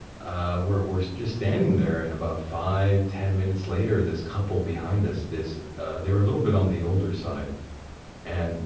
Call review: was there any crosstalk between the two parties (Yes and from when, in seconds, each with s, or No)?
No